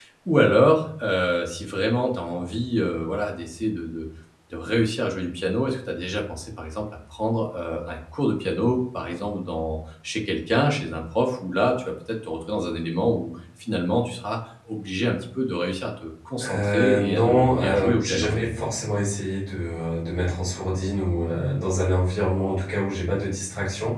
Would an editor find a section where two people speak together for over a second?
Yes, from 16.4 s

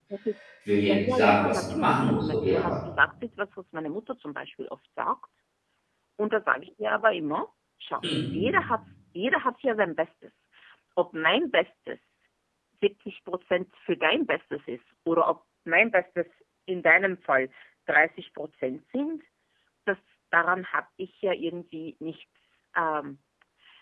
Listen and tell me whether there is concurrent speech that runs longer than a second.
Yes, from 0.8 s

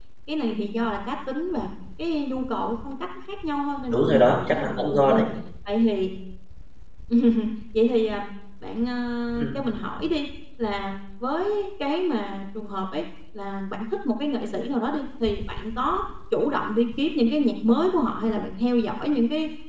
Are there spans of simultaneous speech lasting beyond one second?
Yes, from 3.9 s

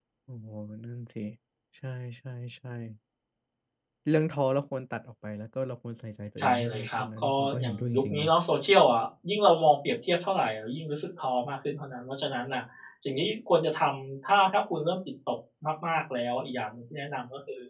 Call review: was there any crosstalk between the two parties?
Yes, from 6.4 s

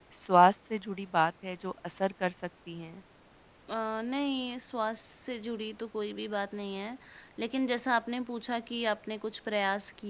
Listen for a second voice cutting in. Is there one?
No

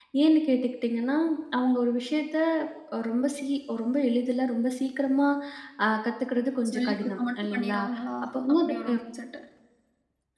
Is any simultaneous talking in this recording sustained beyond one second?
Yes, from 6.3 s

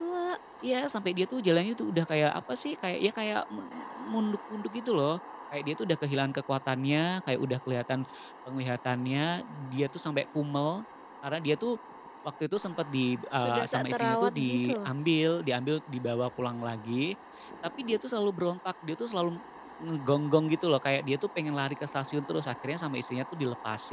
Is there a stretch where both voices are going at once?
Yes, from 13.4 s

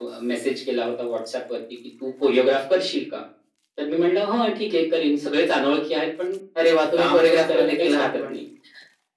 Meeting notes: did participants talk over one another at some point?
Yes, from 7.0 s

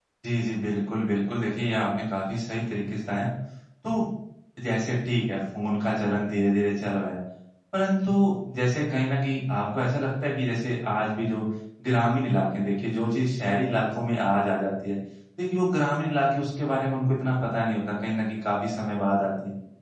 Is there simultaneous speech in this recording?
No

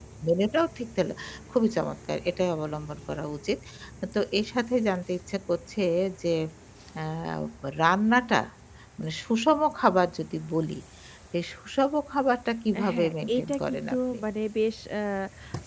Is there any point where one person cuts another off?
Yes, from 12.7 s

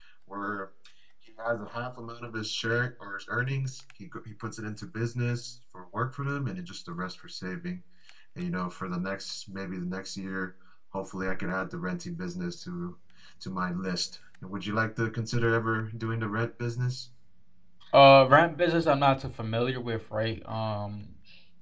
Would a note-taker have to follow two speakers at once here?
No

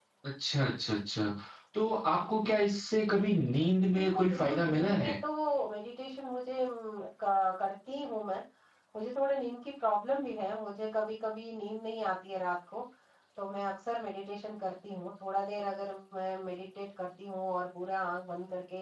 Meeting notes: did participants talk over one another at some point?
Yes, from 3.9 s

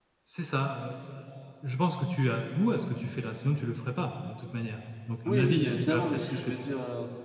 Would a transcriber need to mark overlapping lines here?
Yes, from 5.2 s

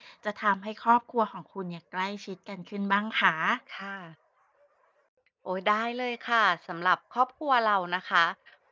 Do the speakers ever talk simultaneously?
No

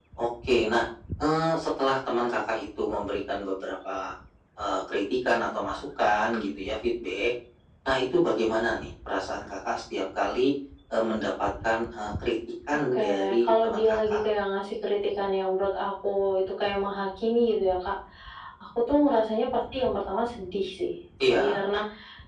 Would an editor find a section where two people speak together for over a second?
Yes, from 12.7 s

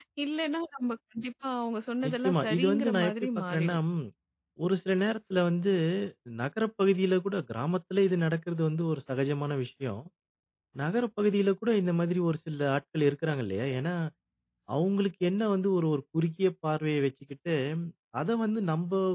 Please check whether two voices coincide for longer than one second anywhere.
Yes, from 2.0 s

